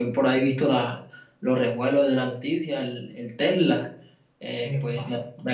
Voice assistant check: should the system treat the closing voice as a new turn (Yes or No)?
No